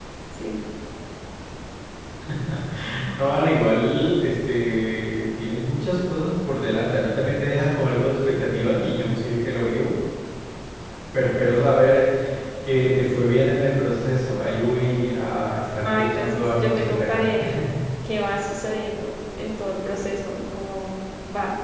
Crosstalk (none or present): present